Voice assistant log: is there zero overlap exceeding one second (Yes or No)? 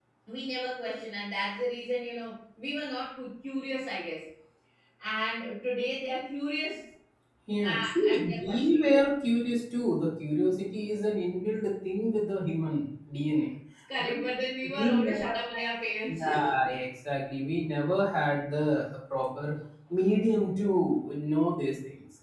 No